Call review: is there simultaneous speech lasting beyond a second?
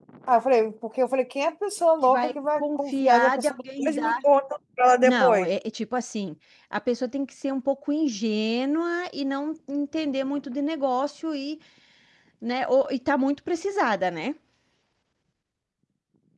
Yes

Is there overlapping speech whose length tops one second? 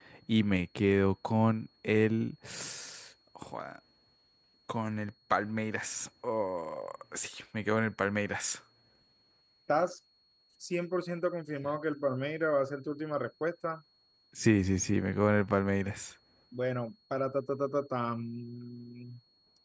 No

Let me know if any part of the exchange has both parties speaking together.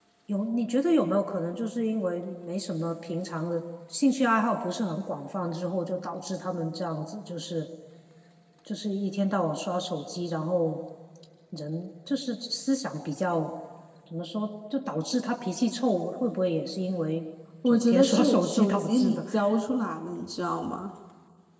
Yes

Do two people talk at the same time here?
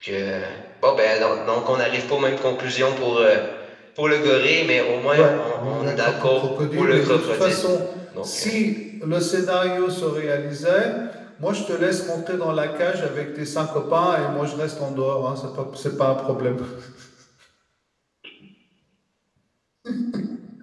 Yes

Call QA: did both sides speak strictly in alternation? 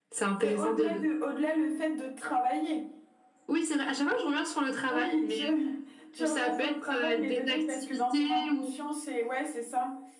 No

